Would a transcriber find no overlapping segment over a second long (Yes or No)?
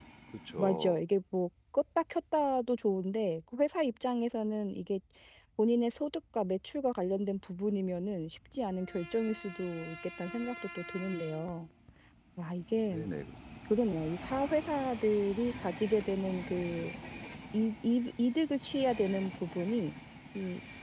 Yes